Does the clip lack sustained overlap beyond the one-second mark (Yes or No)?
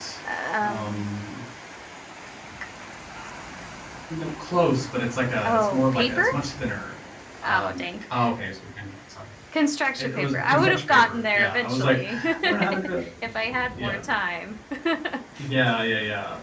No